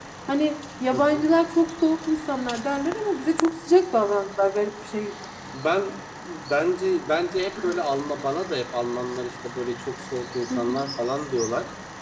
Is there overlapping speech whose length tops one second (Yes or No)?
No